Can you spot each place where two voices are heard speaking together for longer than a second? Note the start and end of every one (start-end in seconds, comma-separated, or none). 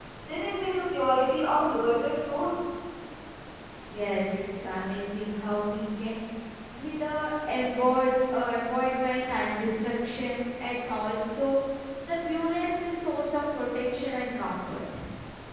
none